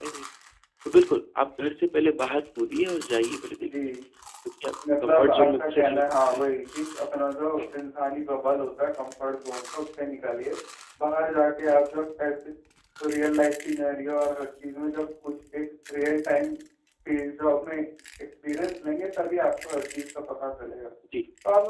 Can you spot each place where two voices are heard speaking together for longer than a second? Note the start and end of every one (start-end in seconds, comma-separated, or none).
5.0-6.5